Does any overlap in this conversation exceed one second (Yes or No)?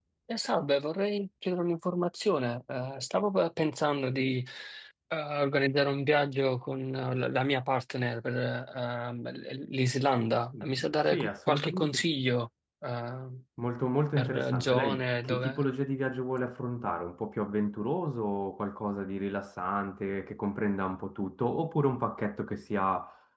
Yes